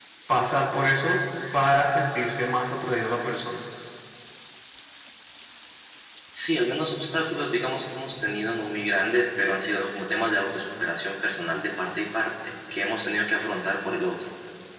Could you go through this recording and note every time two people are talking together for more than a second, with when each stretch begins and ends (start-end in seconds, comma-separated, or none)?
none